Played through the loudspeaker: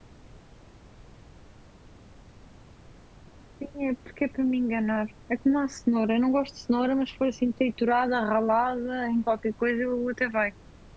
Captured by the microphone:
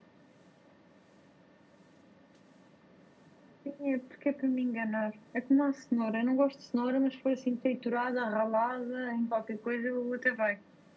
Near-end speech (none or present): none